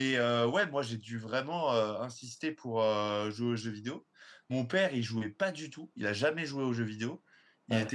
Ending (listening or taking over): listening